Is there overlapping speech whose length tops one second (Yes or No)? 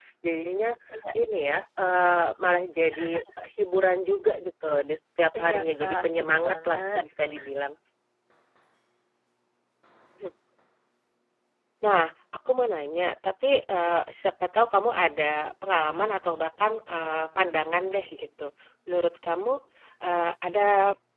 Yes